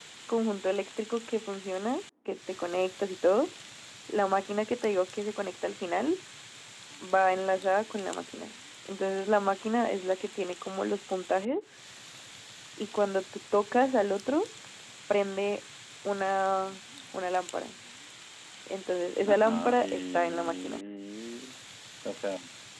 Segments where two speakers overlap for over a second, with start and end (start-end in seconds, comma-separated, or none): 19.3-20.8